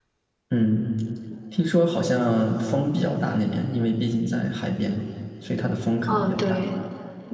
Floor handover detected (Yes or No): Yes